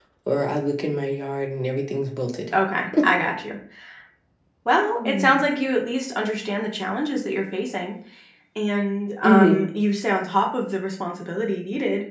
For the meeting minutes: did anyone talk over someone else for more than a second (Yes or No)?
No